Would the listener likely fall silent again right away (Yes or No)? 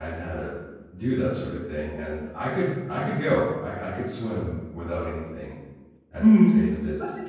No